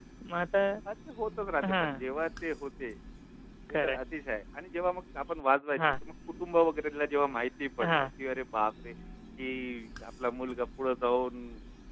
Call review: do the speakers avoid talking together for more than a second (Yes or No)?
Yes